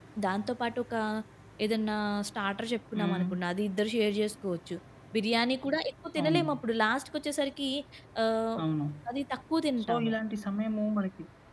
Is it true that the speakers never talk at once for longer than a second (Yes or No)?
Yes